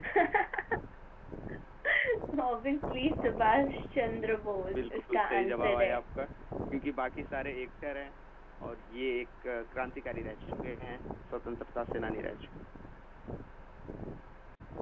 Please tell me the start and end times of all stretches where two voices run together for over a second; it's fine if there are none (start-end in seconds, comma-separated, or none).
4.7-5.9